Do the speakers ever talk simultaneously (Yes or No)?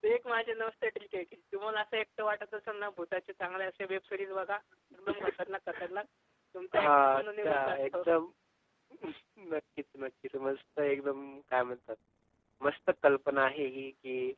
Yes